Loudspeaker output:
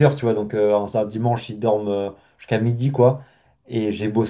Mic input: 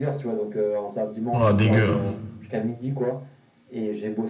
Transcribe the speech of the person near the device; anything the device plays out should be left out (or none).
Oh, dégueu. hein.